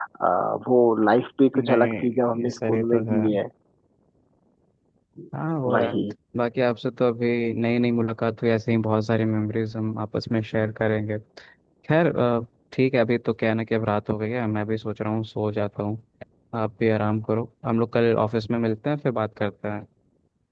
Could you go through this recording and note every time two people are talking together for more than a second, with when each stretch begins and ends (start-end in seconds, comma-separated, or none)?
1.5-3.2